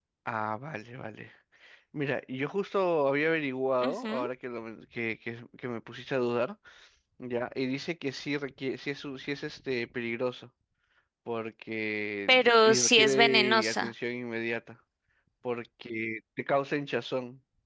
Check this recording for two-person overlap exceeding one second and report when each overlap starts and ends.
12.3-13.9

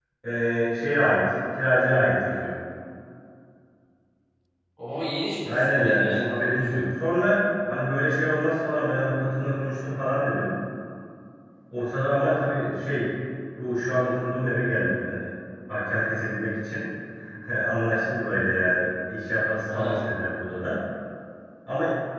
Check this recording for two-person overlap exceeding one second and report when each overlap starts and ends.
5.5-6.8

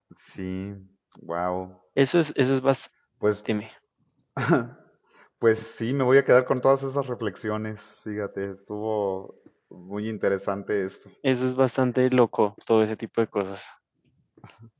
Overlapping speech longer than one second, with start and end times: none

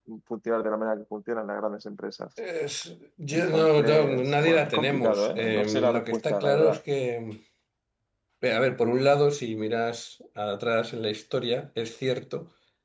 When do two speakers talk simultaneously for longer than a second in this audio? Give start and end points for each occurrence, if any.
3.3-6.8

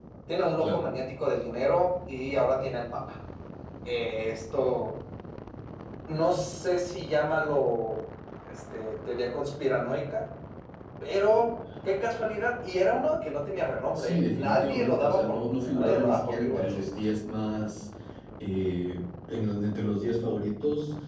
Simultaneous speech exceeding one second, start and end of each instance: 13.9-16.8

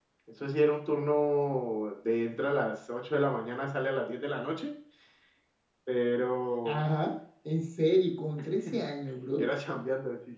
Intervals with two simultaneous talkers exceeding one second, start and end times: none

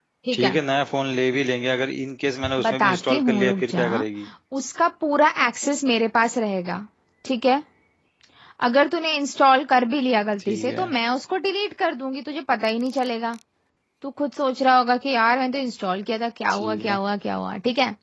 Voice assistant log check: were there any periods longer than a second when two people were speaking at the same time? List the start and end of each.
2.6-3.8

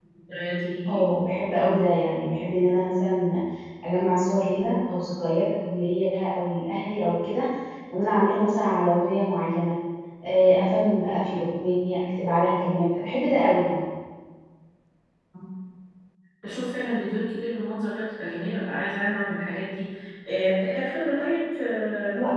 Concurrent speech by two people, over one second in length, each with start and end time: none

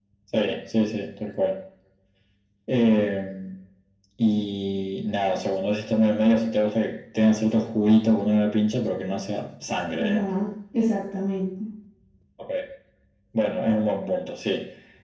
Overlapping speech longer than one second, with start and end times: none

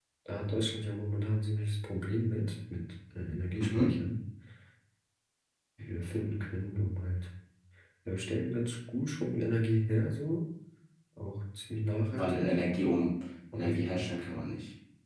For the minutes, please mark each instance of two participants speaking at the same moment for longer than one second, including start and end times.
none

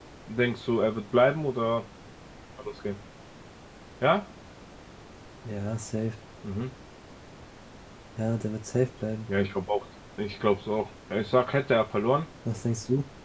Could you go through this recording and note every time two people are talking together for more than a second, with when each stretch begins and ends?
none

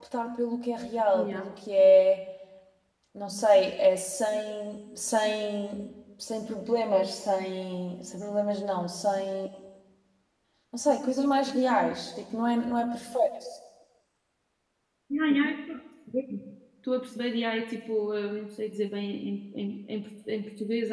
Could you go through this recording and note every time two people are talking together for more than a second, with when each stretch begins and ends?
none

